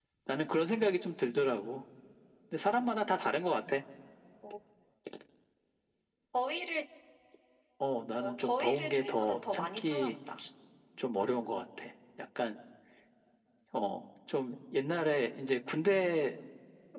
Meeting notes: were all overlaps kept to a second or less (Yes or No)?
No